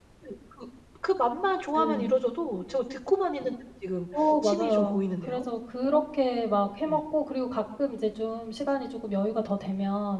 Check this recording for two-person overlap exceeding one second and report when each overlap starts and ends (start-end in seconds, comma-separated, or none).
4.2-5.4